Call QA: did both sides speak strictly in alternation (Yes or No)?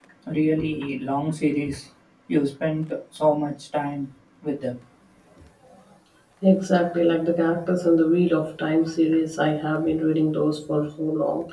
Yes